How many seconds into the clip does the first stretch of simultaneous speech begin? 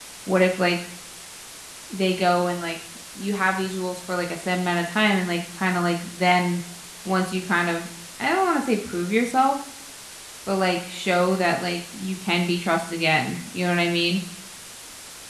none

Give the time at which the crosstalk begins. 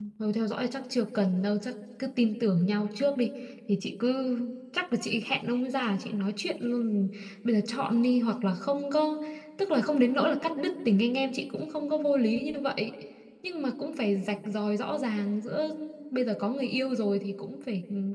none

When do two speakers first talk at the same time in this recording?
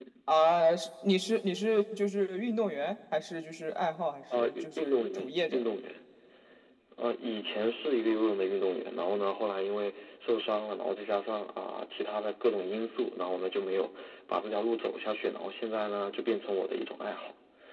4 s

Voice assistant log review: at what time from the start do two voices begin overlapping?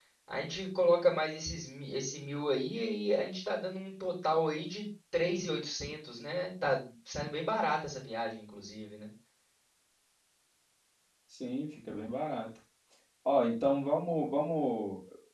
none

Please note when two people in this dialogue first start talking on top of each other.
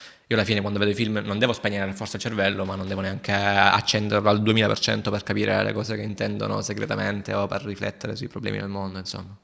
none

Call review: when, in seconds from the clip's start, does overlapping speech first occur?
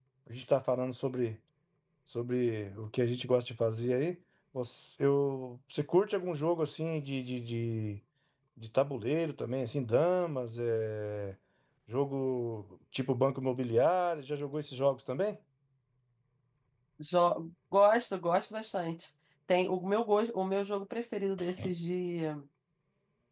none

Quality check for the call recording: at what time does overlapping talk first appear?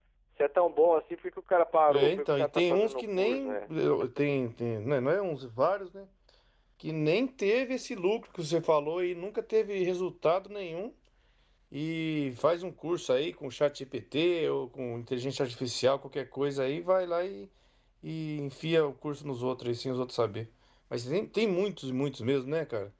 2 s

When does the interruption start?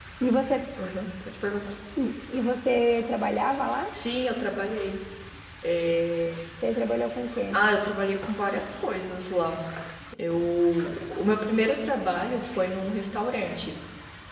none

